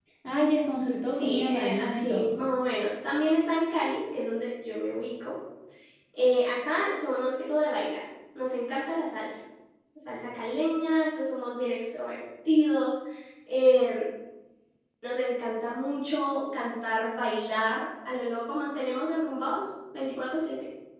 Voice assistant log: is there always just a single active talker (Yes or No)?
No